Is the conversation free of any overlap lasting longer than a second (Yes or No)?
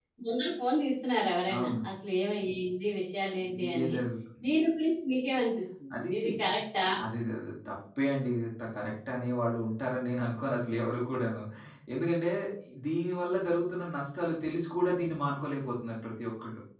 Yes